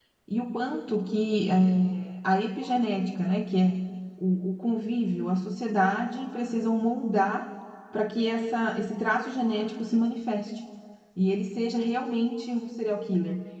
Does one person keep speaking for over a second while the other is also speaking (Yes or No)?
No